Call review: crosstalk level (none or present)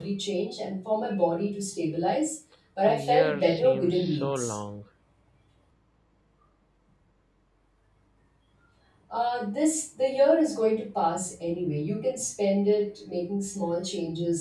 present